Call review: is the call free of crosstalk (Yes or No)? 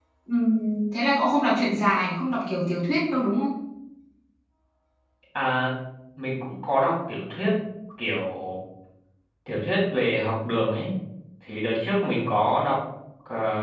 Yes